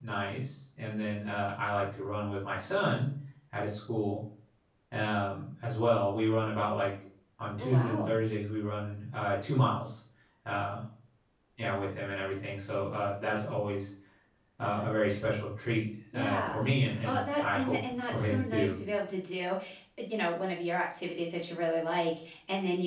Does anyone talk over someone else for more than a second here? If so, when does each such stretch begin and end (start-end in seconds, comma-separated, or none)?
17.0-18.8